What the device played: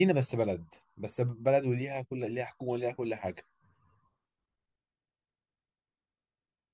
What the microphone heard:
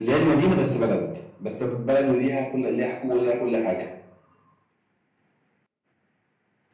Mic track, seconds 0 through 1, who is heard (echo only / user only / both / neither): echo only